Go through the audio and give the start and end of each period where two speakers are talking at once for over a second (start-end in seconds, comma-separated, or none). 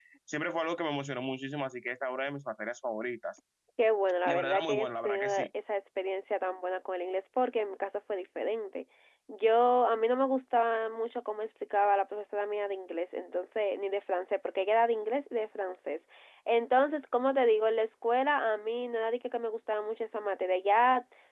4.2-5.5